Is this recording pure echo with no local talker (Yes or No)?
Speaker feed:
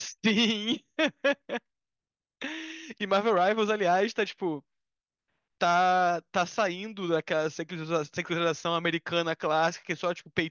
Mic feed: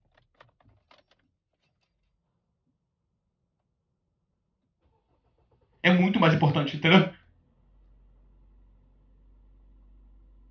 No